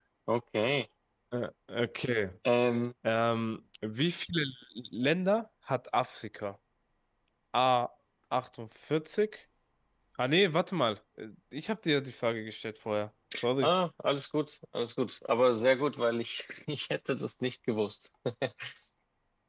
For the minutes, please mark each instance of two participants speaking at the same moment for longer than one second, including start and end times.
none

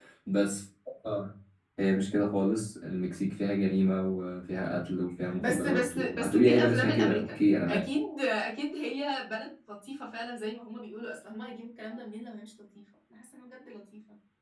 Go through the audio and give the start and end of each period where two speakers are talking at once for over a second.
5.4-7.8

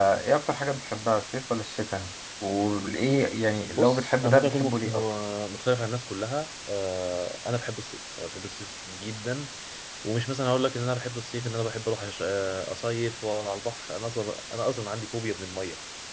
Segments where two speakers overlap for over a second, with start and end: 3.8-5.0

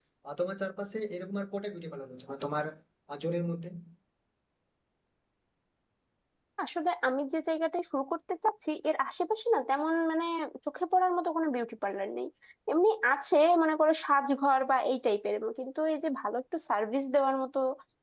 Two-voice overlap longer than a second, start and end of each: none

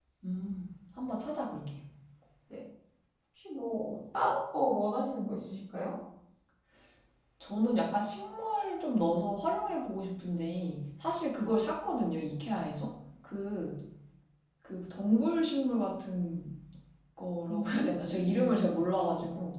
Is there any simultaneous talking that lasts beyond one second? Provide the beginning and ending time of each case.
17.5-18.7

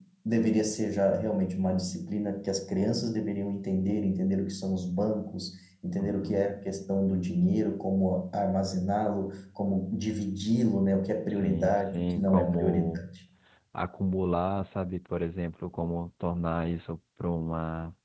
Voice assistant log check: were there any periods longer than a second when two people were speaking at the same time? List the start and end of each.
11.3-13.0

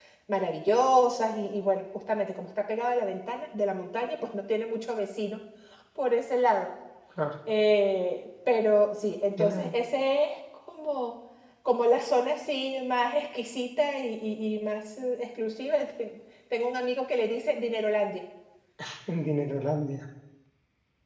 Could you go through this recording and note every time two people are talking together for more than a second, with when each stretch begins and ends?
none

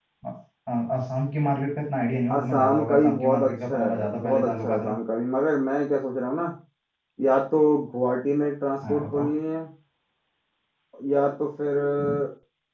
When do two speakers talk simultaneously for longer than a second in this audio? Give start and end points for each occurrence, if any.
2.3-5.0

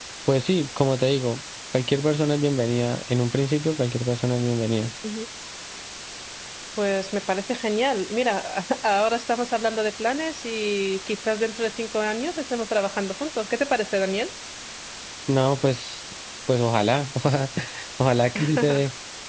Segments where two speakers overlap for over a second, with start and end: none

